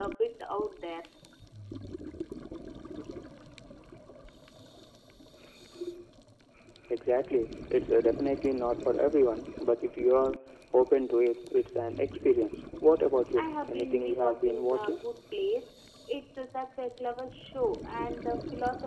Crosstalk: present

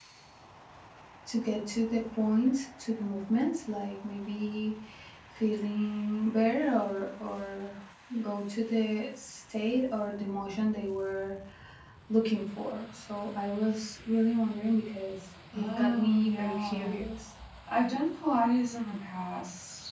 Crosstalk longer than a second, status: present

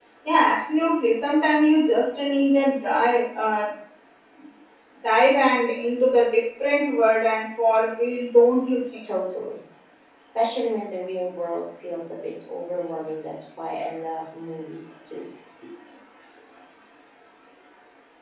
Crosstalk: none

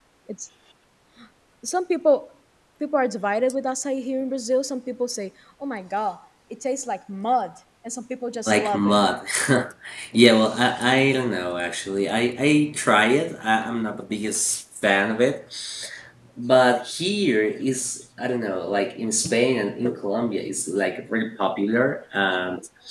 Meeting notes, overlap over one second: none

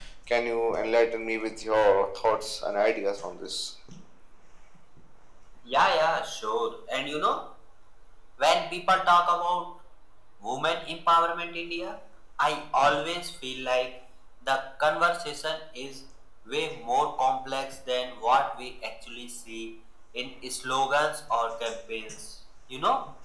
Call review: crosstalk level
none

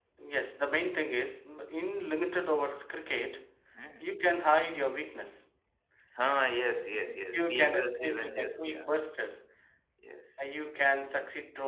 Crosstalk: present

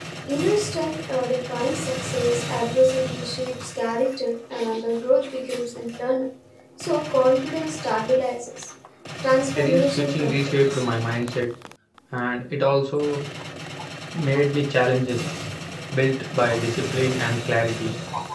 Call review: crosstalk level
present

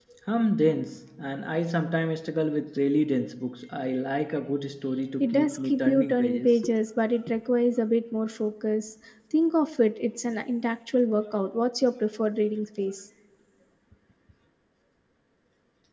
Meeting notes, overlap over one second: present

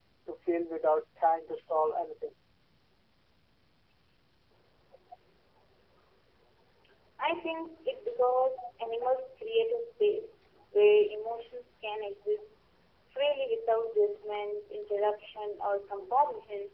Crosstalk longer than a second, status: none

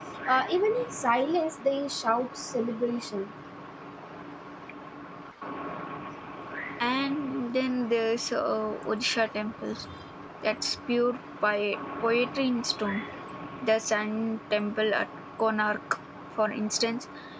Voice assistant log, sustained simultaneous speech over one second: none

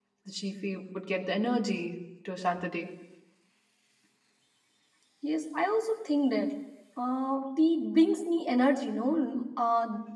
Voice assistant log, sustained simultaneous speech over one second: none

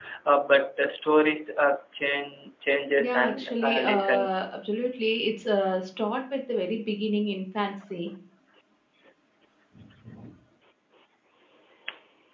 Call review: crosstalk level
present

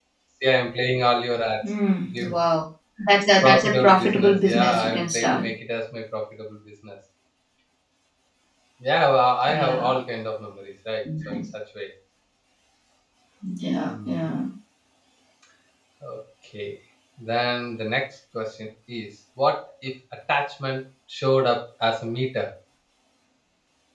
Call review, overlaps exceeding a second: present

